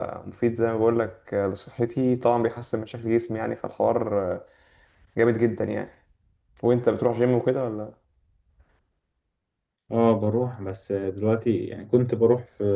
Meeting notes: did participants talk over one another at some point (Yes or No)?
No